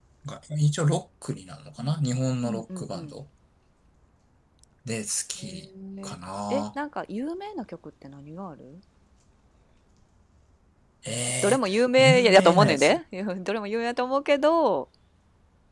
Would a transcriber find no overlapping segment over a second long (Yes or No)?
No